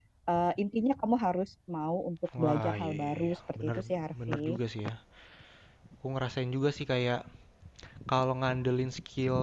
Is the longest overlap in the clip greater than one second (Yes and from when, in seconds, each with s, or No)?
Yes, from 2.3 s